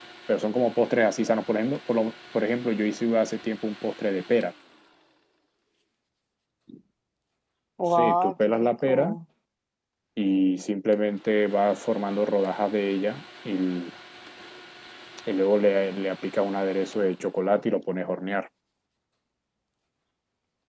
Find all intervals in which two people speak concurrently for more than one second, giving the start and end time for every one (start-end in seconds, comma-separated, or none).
7.9-9.1